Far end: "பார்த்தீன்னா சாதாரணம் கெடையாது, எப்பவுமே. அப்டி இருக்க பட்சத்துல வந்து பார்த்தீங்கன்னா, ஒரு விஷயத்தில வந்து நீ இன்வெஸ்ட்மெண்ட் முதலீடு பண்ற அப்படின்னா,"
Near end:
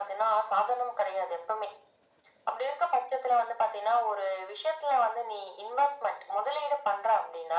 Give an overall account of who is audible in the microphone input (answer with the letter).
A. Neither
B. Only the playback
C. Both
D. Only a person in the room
B